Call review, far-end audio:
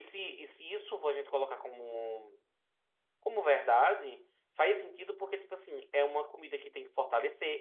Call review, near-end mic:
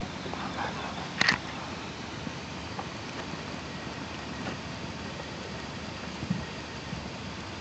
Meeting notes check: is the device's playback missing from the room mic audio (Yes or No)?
Yes